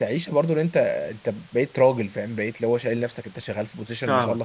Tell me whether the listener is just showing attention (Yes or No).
Yes